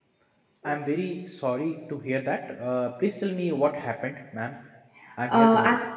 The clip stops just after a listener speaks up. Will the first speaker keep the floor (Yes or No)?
No